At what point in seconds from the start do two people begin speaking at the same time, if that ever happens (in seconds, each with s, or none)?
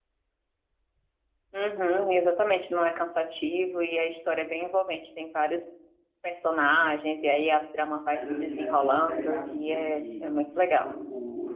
8.1 s